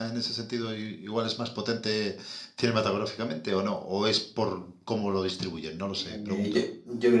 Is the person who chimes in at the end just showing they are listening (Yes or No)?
No